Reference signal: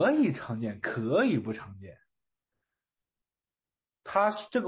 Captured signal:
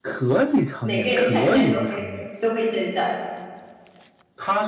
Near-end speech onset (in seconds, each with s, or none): 0.8 s